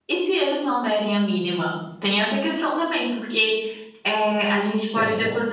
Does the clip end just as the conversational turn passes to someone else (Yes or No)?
No